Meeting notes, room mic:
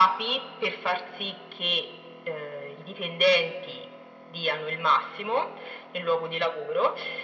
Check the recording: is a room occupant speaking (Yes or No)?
No